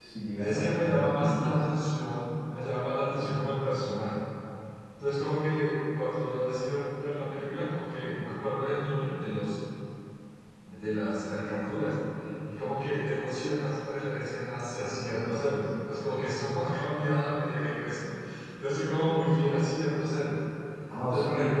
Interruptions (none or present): present